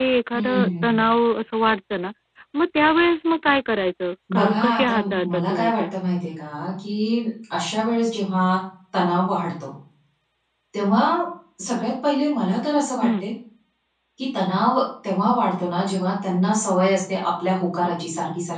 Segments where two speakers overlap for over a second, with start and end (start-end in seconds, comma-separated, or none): 4.3-5.8